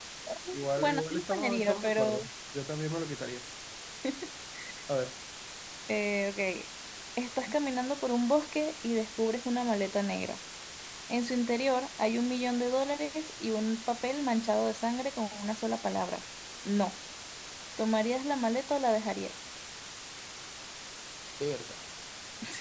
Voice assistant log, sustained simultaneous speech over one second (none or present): present